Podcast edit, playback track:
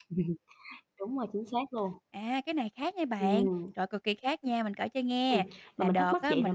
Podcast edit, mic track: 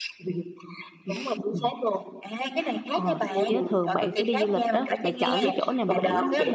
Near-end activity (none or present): present